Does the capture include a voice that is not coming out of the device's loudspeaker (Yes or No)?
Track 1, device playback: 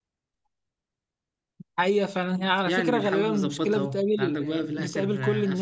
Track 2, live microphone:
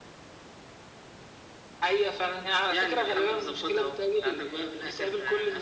No